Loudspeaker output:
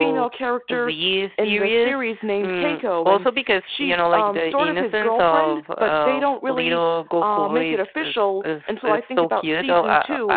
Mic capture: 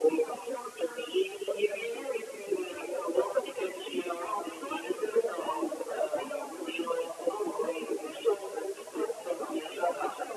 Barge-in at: none

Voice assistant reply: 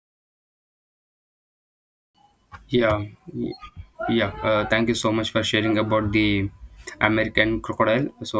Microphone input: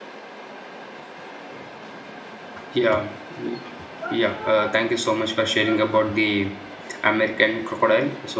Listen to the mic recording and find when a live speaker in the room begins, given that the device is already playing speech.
none

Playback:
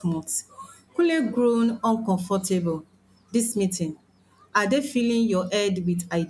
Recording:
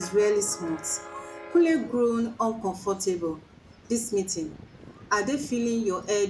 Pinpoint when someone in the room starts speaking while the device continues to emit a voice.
none

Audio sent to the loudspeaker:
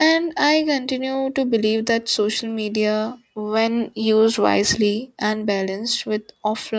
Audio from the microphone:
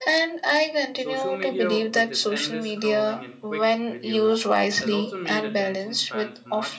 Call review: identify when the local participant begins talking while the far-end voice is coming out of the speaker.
0.9 s

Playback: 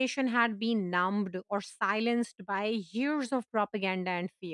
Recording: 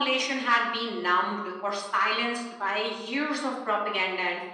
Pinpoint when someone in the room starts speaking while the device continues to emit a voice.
none

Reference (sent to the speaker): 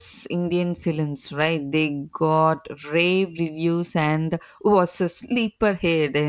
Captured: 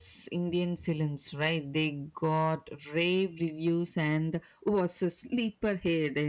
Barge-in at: none

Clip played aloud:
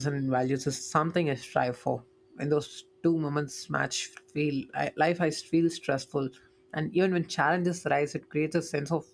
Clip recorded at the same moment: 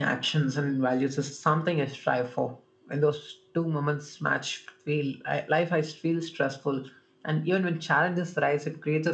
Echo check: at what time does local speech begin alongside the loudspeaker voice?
none

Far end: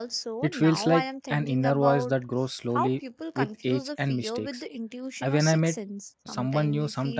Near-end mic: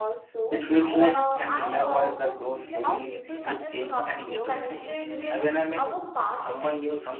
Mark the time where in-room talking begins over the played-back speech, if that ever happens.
1.1 s

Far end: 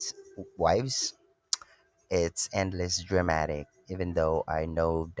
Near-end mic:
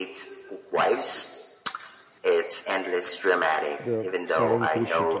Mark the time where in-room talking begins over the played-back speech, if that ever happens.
3.8 s

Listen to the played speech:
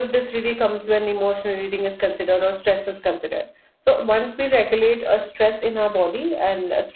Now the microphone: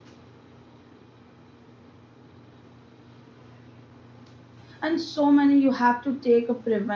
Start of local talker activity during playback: 4.8 s

